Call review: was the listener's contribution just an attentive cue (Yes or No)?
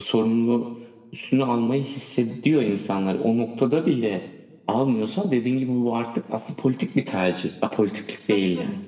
No